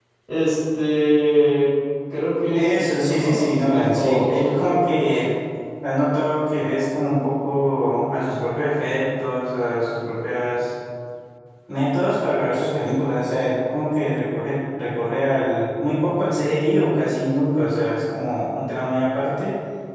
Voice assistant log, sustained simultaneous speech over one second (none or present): present